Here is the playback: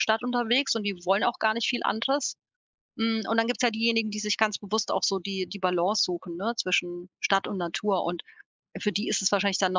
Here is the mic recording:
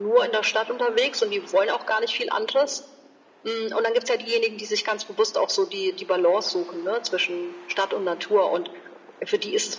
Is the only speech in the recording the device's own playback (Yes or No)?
Yes